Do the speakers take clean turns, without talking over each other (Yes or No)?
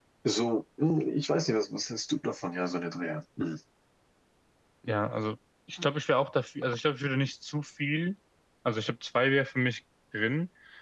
Yes